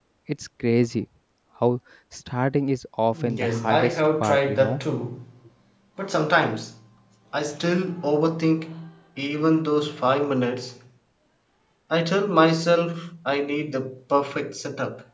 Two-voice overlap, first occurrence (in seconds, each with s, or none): 3.1 s